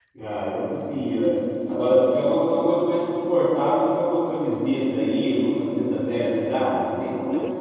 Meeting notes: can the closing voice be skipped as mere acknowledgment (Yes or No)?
No